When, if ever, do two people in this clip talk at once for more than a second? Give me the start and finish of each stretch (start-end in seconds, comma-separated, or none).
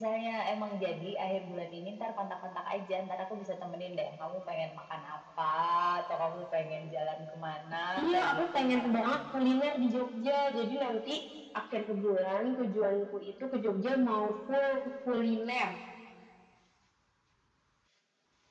8.0-9.4